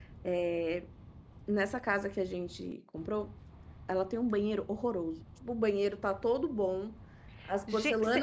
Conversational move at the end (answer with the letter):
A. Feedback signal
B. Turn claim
A